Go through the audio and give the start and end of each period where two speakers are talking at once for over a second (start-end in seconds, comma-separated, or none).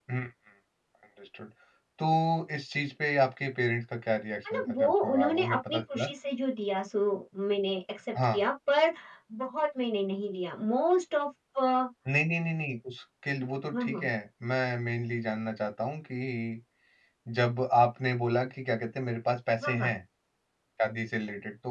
4.5-6.0